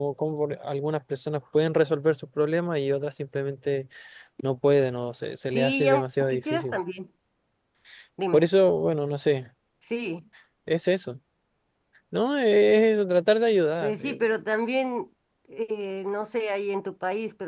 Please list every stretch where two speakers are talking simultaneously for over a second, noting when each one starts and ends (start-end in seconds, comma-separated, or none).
5.5-6.8